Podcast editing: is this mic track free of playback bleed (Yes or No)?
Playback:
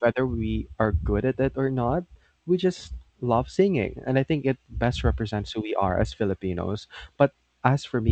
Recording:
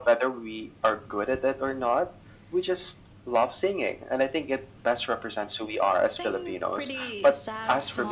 No